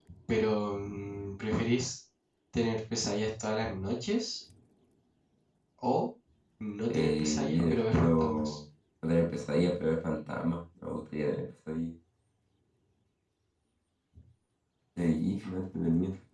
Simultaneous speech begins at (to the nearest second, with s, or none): 7 s